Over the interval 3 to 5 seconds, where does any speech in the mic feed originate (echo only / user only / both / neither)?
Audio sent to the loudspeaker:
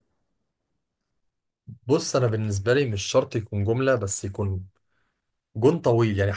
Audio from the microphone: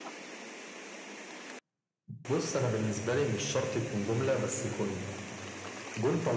echo only